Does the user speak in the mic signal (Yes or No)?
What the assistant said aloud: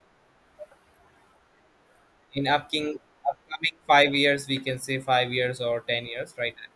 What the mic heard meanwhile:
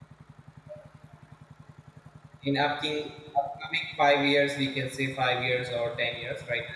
No